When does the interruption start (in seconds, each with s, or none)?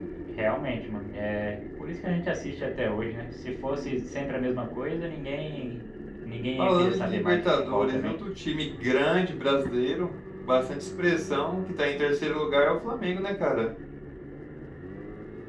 6.6 s